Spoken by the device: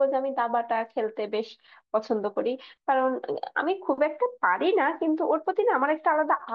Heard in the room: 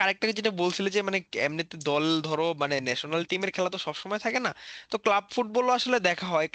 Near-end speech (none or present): present